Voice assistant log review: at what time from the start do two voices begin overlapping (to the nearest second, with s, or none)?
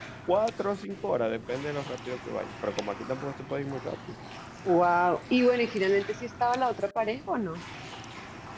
none